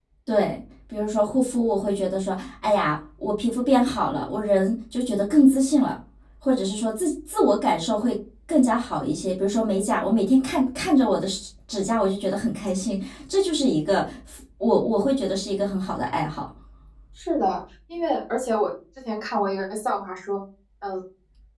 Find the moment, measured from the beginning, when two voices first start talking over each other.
none

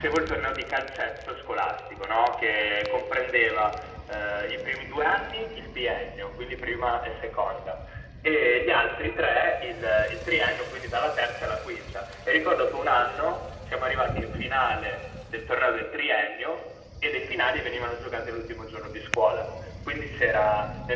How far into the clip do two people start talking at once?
none

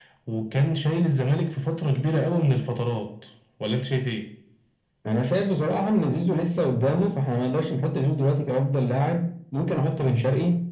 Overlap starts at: none

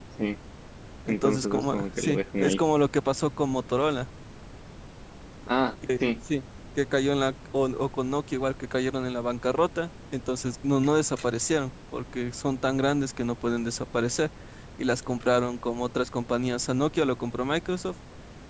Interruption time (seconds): 1 s

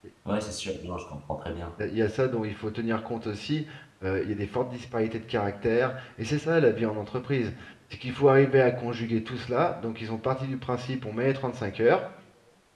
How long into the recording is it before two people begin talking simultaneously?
none

